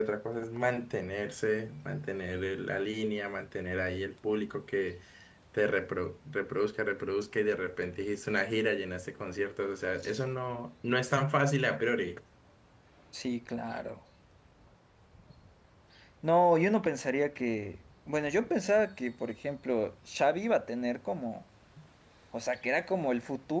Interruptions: none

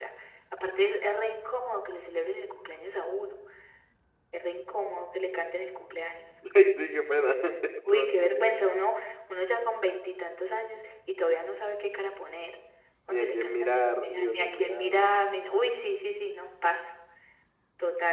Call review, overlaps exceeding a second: present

